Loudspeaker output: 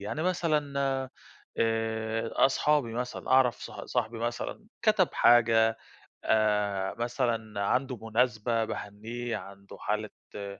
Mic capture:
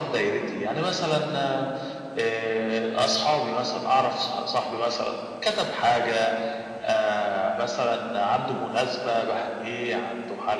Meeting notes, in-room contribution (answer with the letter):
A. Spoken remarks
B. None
B